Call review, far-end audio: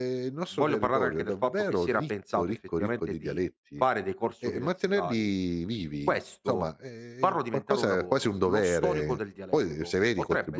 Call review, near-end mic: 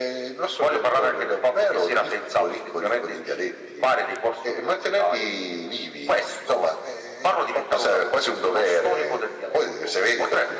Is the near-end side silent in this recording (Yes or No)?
Yes